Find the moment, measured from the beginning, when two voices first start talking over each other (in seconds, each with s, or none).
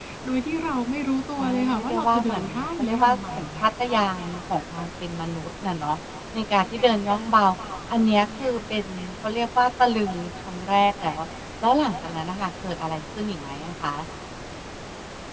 1.4 s